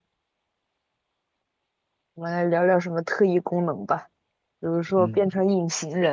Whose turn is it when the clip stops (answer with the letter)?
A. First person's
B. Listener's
A